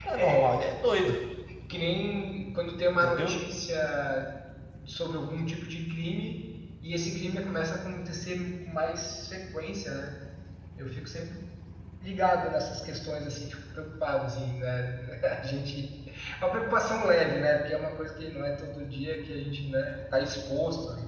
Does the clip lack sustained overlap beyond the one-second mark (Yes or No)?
Yes